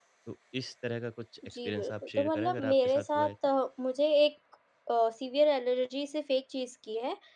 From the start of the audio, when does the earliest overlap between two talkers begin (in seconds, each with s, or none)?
1.4 s